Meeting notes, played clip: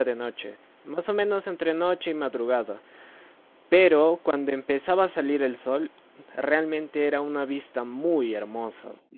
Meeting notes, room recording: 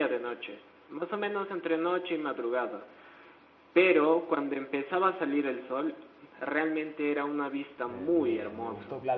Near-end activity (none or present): present